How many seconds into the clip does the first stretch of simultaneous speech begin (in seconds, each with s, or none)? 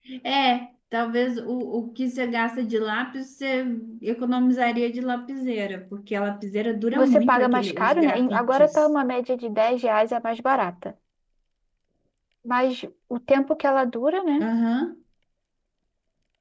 6.9 s